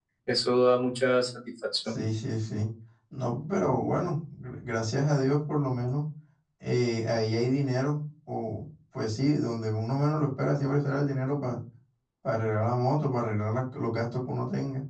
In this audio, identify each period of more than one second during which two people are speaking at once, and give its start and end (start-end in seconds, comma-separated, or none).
none